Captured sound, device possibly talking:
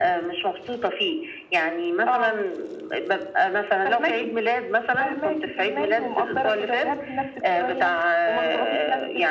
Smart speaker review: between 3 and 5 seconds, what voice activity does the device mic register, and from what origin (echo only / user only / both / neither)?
echo only